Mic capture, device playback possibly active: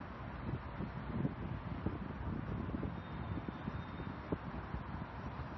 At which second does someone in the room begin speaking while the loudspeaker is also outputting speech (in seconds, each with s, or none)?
none